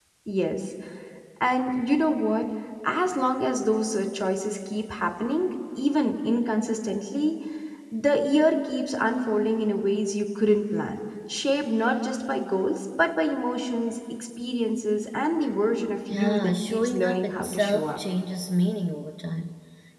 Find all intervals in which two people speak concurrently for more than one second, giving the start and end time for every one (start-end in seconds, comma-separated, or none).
16.1-18.0